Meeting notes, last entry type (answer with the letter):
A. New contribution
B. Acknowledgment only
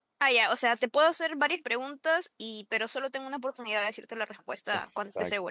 A